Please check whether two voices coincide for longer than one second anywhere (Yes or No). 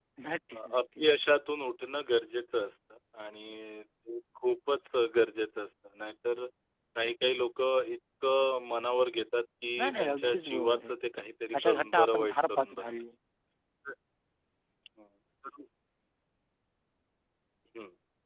Yes